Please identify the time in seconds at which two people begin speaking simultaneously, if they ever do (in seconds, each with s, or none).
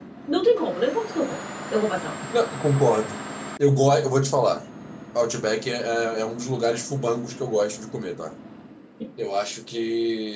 none